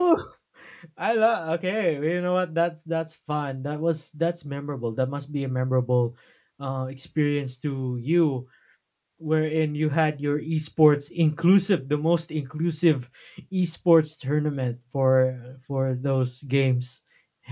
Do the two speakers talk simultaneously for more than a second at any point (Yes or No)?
No